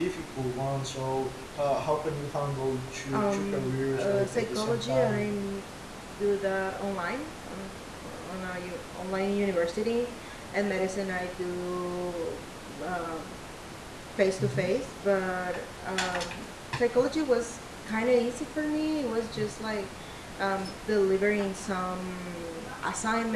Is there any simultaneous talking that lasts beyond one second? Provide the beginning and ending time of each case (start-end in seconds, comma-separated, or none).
3.1-5.3